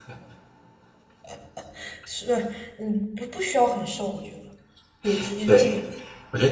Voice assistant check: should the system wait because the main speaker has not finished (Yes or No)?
No